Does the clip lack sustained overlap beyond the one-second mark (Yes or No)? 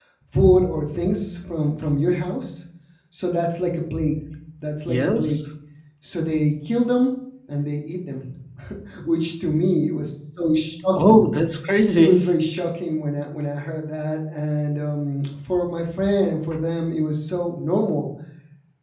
Yes